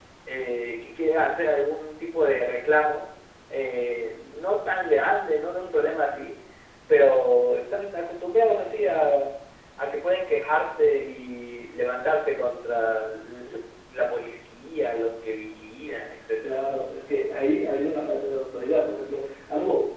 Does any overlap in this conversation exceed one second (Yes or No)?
No